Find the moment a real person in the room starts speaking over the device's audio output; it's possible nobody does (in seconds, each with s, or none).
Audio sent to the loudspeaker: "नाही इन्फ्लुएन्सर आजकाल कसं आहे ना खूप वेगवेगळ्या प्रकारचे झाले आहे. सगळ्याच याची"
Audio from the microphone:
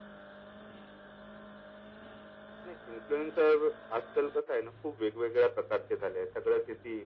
none